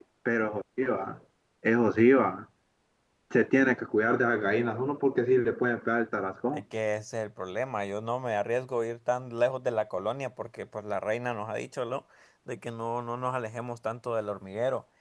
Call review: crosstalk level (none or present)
none